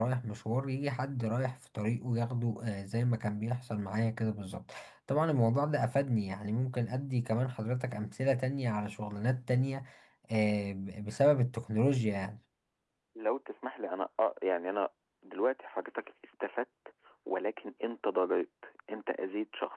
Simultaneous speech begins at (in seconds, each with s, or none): none